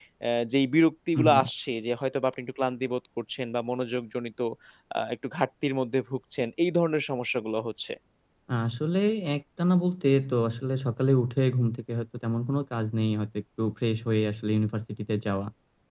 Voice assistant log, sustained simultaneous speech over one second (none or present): none